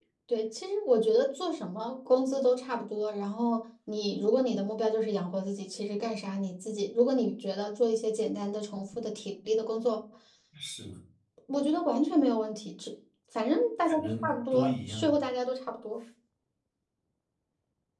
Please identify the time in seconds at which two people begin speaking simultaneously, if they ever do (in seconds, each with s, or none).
13.9 s